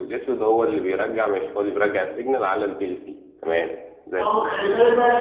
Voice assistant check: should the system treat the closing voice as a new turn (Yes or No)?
Yes